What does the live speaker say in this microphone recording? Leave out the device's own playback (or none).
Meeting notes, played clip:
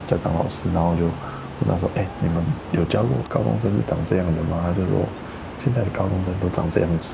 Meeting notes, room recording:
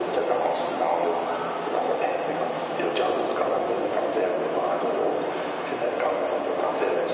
none